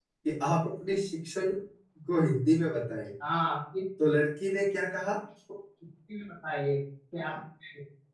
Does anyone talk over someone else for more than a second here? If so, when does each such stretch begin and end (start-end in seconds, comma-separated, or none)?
none